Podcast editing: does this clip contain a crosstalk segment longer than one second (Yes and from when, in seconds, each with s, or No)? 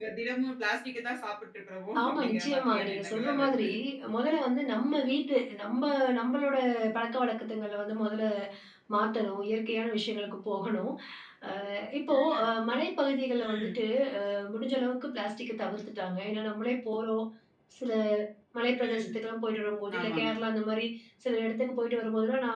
Yes, from 2.0 s